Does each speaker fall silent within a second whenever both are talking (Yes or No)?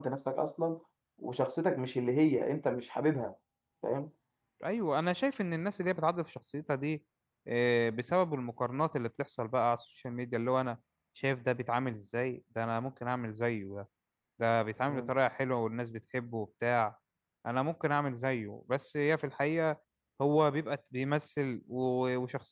Yes